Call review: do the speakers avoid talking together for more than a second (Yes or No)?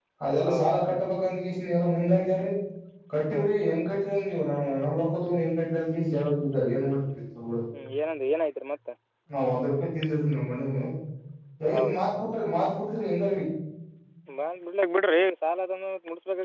Yes